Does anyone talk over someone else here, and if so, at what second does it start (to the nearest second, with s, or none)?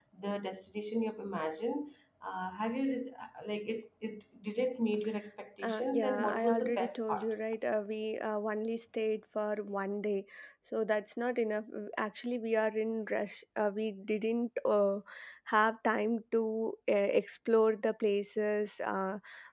6 s